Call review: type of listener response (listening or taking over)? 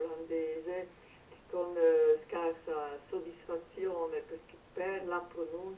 listening